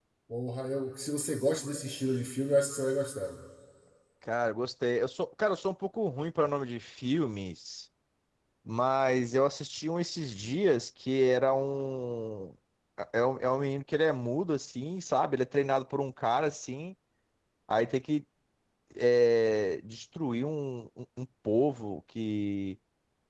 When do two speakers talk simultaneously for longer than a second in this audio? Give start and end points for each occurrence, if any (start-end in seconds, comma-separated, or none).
none